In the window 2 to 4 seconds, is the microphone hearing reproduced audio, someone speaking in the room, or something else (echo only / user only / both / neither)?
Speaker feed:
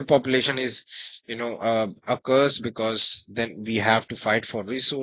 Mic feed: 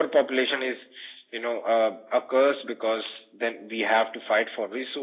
echo only